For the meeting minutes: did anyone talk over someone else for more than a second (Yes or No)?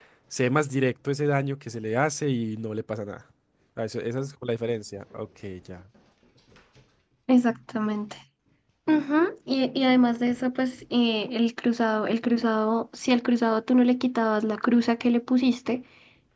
No